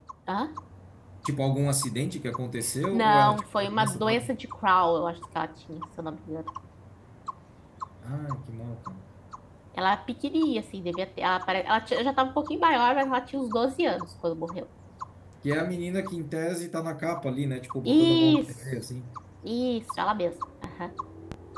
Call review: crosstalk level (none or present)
present